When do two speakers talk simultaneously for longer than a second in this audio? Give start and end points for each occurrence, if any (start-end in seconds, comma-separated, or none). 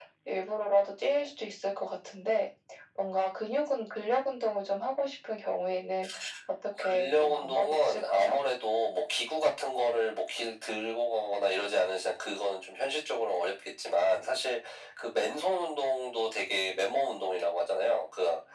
6.9-8.4